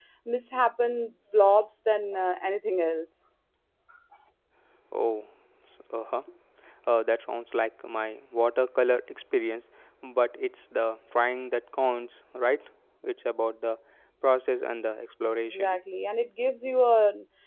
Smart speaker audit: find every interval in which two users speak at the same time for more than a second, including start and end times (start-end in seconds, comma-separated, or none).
none